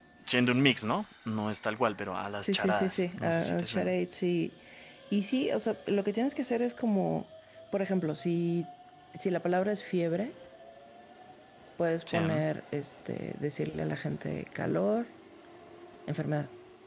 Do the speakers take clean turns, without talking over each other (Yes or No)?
No